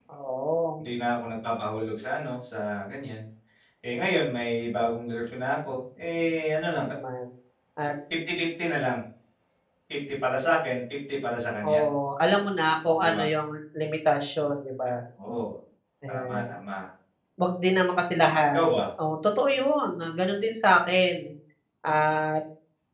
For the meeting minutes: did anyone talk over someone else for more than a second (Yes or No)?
No